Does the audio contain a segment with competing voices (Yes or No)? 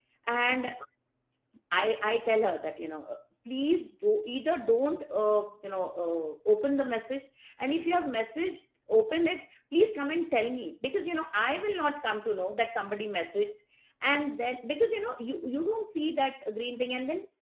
No